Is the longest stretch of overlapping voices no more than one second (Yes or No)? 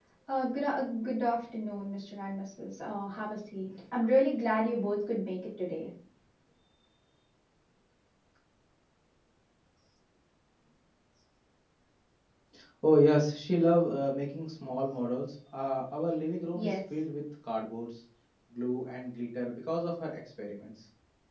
Yes